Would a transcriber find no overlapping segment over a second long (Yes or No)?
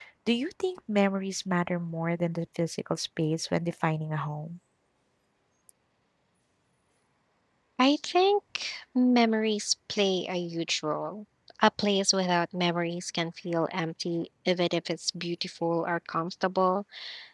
Yes